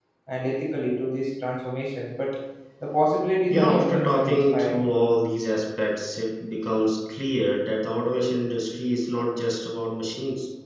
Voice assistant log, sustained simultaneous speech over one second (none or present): present